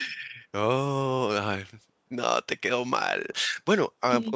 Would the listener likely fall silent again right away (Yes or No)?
Yes